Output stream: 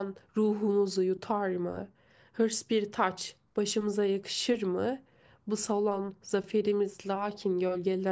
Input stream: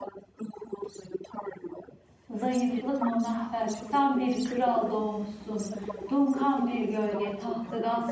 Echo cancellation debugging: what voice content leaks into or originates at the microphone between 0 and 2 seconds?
echo only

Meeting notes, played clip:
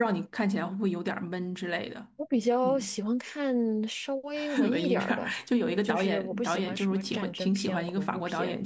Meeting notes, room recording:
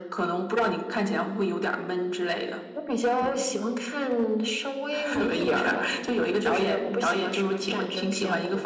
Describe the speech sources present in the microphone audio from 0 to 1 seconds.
echo only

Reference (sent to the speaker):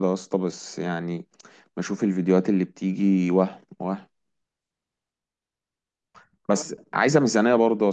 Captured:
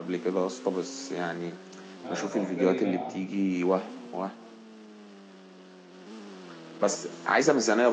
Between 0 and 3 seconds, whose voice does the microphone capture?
both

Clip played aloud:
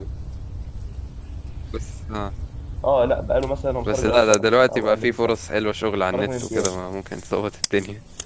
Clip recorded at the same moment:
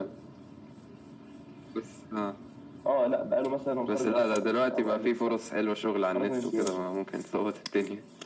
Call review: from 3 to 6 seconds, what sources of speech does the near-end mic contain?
echo only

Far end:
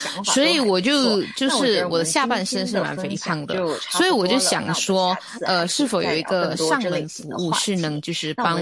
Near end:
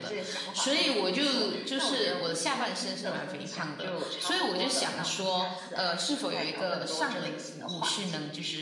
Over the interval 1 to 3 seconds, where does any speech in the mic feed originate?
echo only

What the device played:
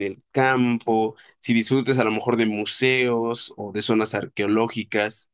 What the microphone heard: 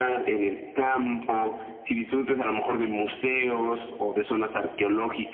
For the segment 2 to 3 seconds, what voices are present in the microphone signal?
echo only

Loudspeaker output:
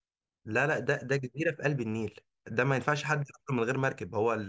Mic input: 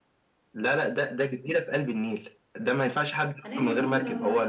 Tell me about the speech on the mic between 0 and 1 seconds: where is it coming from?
echo only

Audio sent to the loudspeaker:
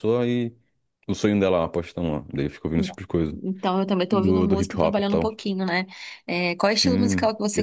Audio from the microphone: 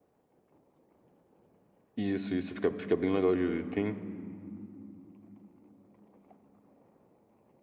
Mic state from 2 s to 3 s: user only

